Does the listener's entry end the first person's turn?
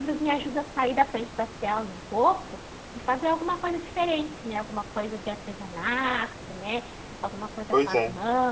No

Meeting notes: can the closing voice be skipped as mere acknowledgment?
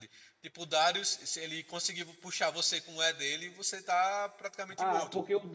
No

